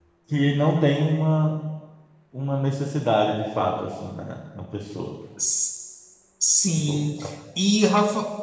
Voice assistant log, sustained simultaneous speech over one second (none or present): none